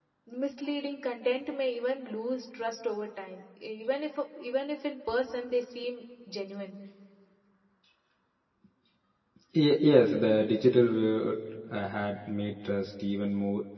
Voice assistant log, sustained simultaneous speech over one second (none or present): none